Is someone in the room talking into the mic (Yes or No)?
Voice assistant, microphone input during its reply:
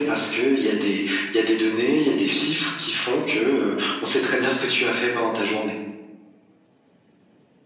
No